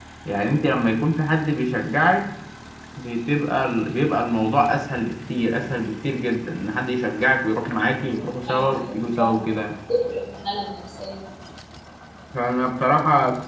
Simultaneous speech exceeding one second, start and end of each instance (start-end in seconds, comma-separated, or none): 8.0-9.4